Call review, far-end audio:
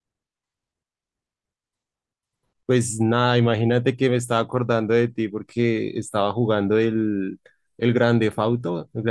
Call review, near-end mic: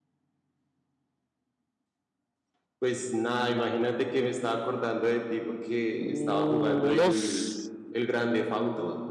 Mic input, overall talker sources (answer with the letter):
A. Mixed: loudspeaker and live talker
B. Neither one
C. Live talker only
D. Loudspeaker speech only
A